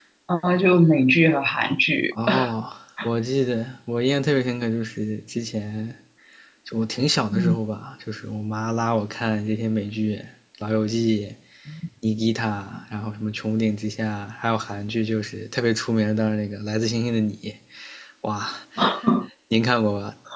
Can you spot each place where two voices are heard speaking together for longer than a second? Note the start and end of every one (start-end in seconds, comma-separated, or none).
none